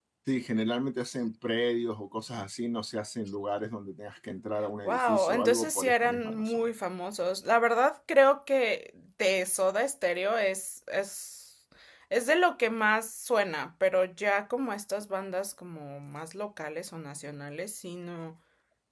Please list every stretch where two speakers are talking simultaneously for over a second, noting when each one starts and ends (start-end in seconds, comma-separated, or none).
4.8-6.7